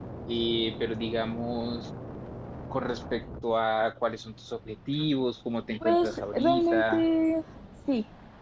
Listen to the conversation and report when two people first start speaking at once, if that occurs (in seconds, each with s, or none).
5.8 s